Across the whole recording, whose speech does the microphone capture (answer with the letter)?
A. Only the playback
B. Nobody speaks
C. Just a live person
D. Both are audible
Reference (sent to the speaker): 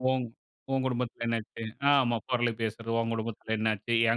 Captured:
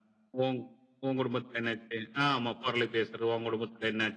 A